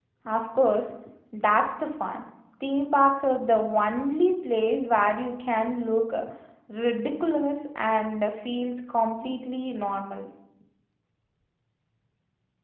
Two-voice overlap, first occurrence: none

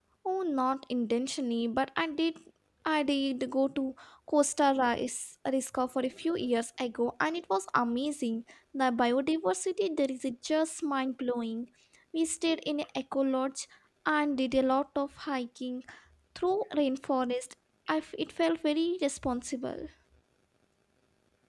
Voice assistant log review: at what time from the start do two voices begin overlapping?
none

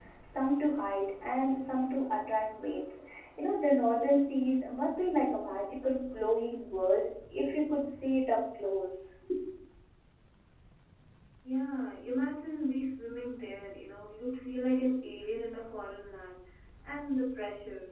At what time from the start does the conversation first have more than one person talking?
none

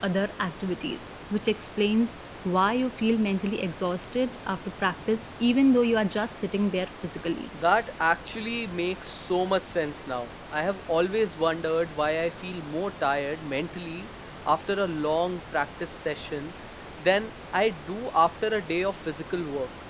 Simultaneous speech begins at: none

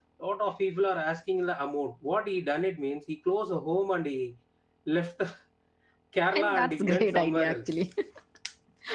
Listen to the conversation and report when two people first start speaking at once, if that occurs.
6.3 s

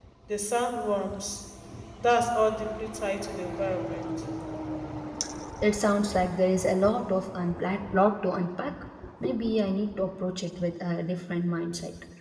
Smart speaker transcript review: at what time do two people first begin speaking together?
none

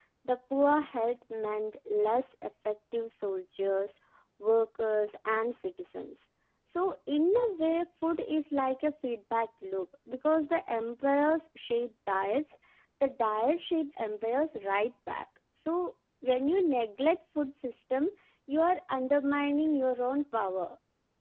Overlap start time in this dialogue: none

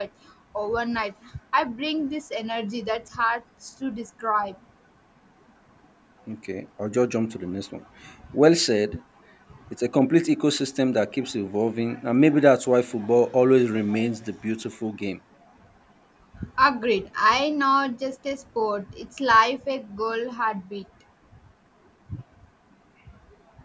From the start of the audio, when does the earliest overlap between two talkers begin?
none

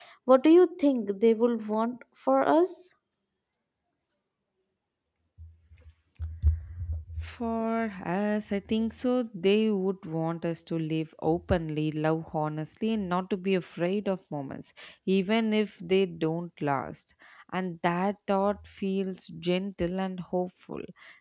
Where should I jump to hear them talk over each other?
none

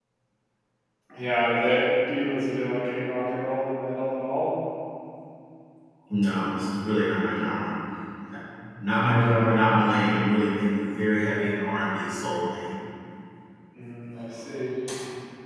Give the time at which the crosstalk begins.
none

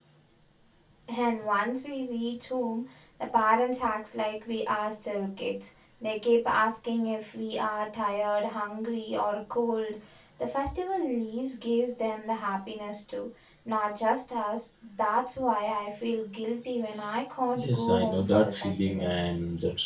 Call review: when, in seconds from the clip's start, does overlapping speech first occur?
17.6 s

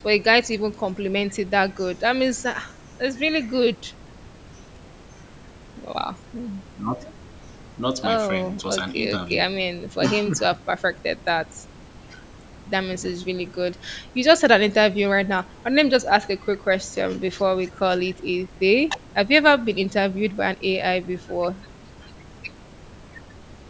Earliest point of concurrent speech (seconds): 8.1 s

